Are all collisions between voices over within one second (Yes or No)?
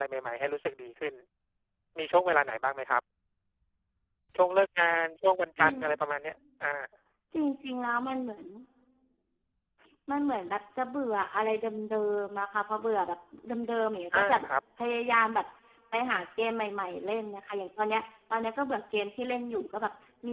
Yes